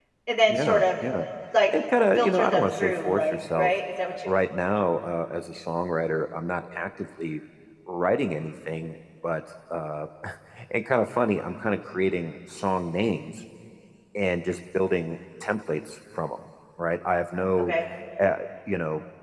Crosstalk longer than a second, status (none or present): present